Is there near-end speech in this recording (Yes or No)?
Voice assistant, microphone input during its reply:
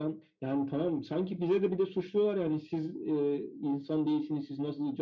No